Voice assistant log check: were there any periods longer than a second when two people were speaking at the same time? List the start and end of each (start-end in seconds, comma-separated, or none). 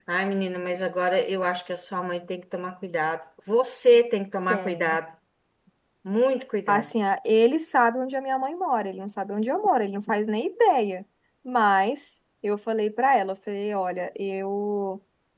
none